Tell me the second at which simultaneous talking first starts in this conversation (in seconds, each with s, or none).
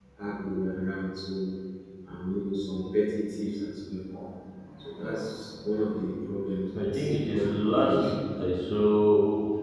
6.8 s